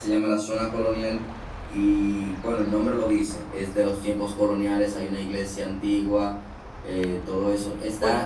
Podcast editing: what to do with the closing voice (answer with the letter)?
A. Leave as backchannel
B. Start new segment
A